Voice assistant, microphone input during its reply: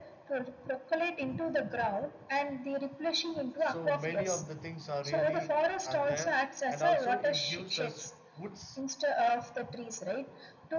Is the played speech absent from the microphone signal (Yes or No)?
No